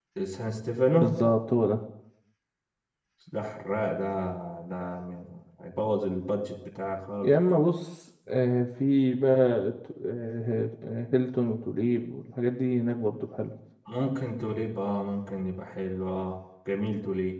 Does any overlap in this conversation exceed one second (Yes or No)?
No